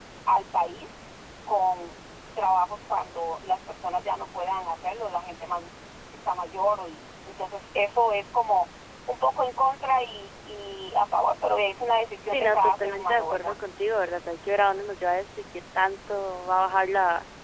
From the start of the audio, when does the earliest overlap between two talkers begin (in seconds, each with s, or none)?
12.3 s